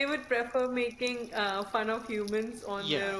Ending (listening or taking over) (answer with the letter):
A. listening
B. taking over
B